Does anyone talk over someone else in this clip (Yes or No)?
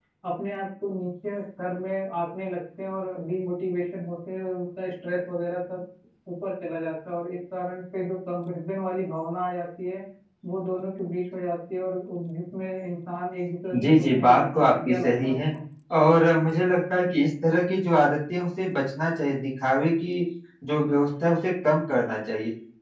Yes